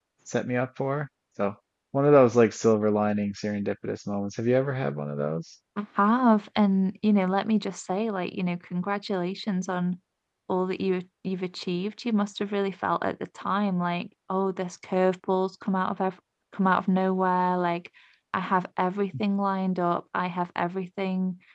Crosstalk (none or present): none